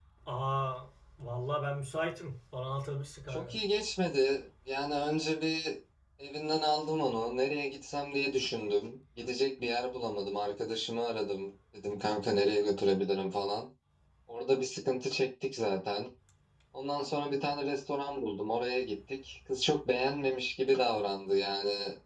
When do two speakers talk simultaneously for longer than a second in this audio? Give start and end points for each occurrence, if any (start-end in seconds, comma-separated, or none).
none